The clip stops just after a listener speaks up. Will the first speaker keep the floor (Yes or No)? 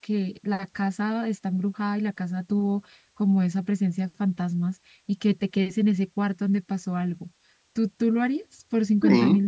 No